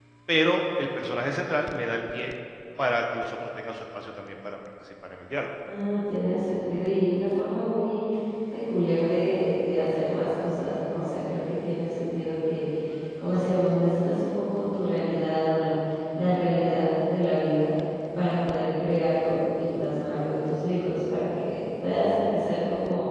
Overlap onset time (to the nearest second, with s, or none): none